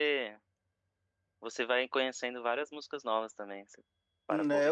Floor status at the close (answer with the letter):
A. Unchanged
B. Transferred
B